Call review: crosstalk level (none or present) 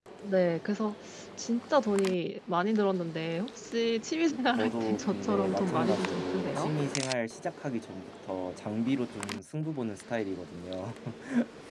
present